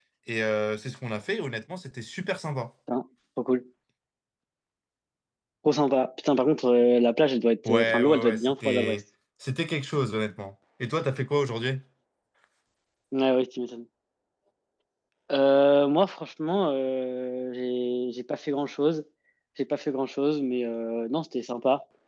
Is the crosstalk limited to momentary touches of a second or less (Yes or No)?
No